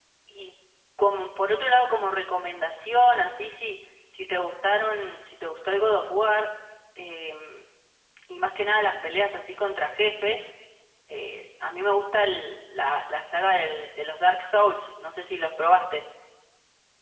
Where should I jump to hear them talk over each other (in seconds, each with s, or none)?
none